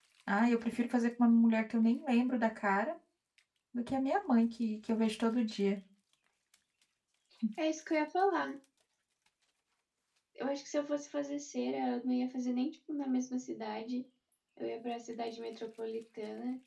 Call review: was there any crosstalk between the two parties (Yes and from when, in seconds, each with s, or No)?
No